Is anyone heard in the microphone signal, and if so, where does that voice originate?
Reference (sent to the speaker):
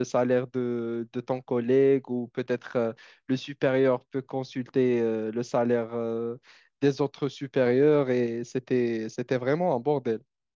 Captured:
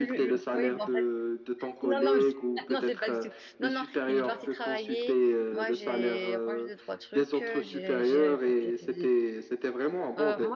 both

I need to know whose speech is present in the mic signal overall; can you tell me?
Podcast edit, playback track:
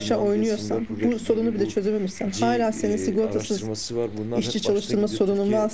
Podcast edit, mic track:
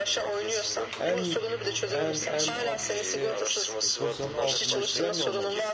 both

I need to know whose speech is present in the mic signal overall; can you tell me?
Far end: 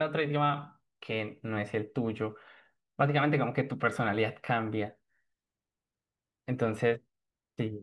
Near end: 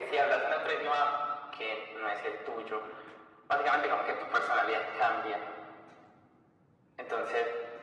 echo only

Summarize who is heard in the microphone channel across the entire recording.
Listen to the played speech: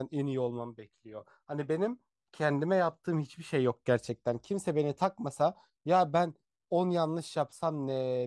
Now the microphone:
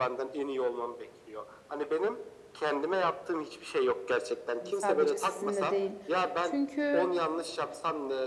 both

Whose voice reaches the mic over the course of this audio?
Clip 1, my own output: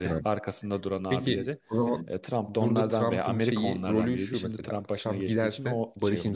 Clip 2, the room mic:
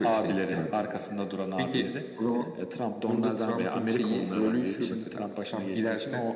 echo only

